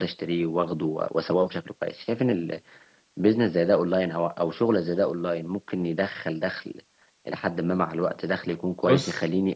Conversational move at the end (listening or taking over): listening